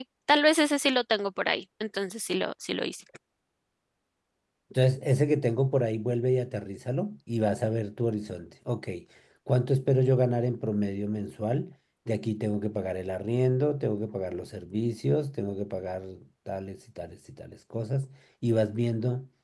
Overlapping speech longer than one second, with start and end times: none

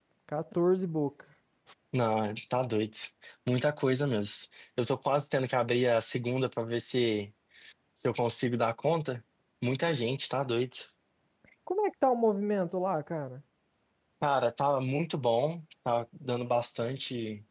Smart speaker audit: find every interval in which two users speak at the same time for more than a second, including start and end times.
none

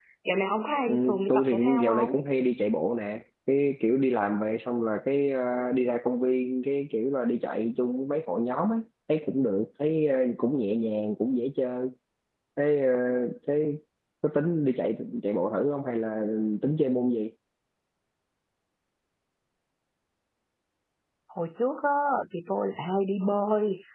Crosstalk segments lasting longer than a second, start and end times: 0.9-2.1

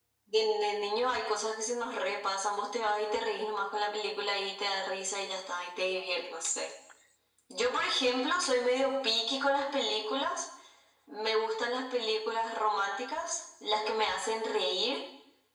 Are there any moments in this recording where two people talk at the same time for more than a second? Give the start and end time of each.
none

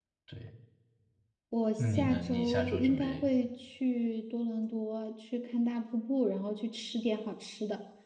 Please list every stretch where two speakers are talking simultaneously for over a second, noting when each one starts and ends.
1.8-3.3

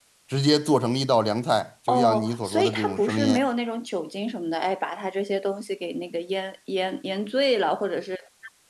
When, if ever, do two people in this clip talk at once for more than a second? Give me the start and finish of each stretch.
1.9-3.4

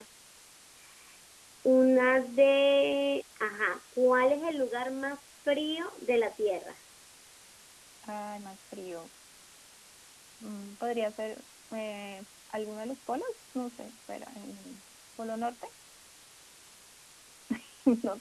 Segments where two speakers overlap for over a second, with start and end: none

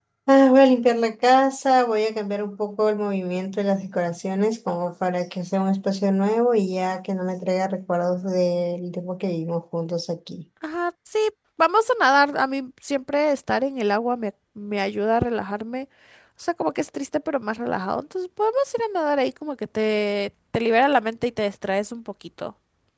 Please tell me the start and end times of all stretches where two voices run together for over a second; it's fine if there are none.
none

